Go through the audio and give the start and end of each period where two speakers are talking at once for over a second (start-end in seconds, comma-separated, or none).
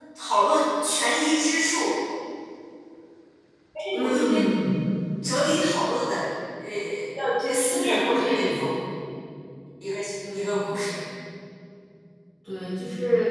7.4-8.6